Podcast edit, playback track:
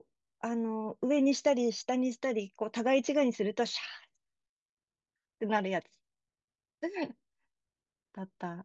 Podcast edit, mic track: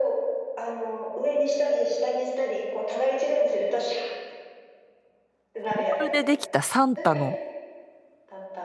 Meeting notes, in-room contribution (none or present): present